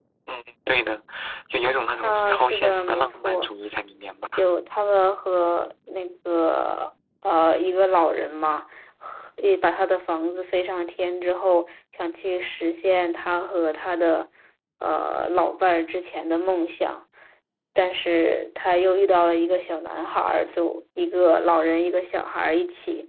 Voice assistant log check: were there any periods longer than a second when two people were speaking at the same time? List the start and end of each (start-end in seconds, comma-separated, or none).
2.0-3.5